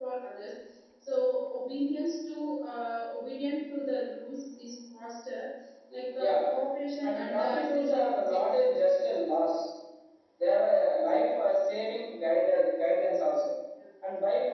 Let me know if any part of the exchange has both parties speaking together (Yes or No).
Yes